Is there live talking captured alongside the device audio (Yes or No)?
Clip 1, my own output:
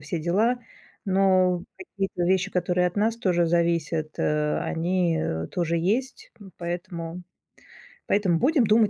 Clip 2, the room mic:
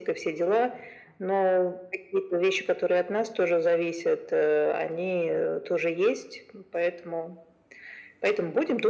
No